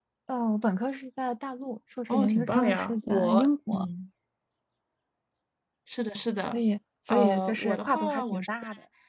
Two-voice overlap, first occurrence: 2.1 s

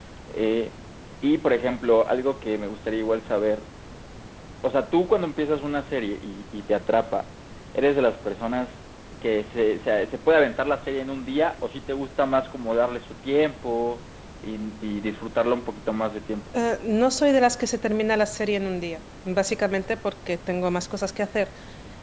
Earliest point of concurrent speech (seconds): none

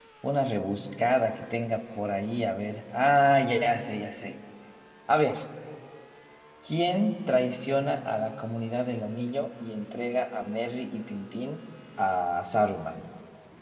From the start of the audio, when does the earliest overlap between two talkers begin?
none

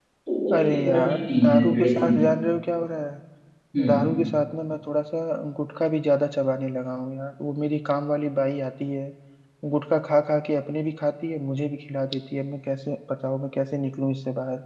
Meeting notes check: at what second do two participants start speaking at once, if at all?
0.6 s

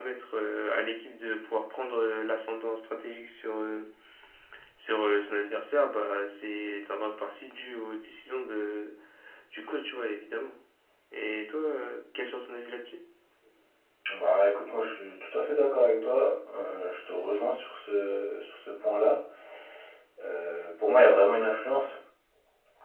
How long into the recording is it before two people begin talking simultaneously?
none

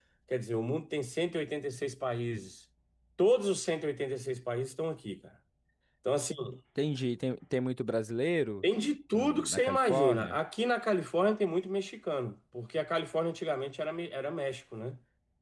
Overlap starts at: 9.1 s

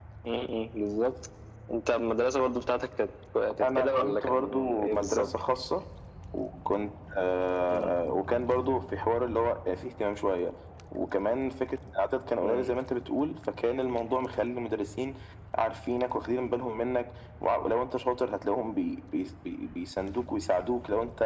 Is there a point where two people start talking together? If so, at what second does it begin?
3.6 s

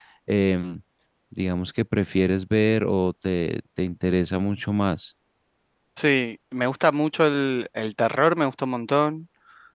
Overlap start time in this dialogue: none

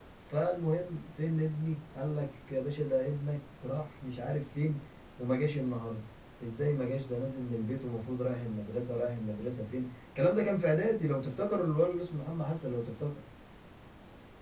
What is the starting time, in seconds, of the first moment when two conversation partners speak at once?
none

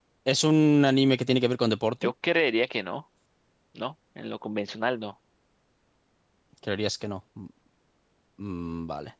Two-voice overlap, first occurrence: none

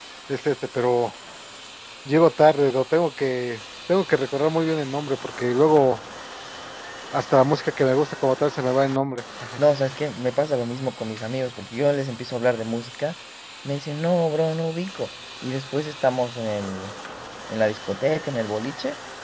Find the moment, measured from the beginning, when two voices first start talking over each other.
none

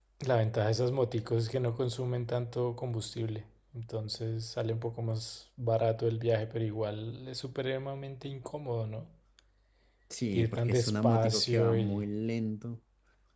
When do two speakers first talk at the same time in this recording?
10.4 s

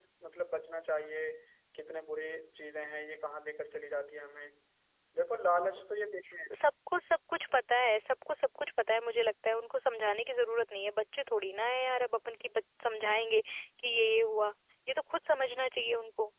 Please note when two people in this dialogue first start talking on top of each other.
none

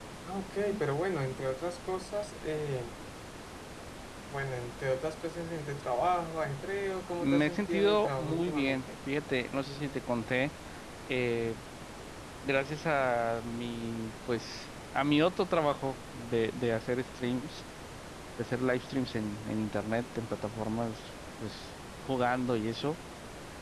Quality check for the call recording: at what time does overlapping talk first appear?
7.2 s

